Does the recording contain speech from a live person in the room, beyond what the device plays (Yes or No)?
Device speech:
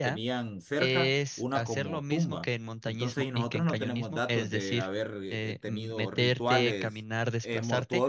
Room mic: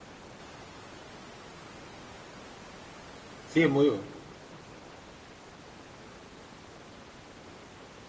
Yes